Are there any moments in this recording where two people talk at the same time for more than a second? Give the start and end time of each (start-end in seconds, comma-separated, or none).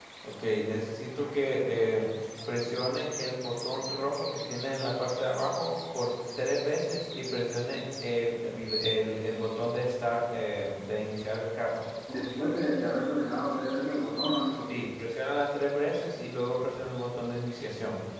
none